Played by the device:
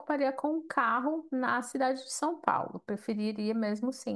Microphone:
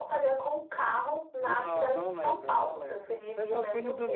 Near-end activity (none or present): present